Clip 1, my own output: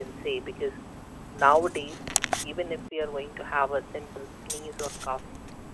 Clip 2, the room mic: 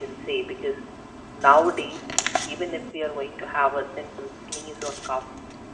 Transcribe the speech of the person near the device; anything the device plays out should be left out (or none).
none